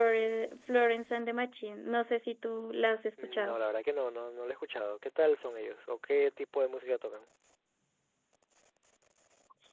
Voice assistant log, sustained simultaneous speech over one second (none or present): none